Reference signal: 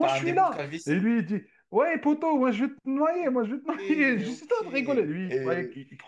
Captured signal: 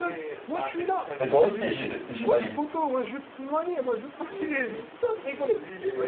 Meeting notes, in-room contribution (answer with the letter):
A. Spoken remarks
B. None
A